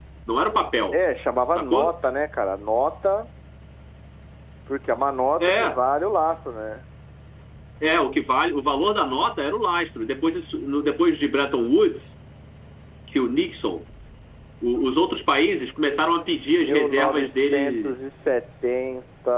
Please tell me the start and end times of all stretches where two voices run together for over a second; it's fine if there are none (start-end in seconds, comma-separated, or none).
16.4-17.9